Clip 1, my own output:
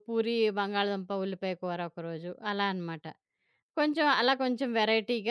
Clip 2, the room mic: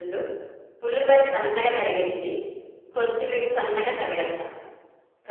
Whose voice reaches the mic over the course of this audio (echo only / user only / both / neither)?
user only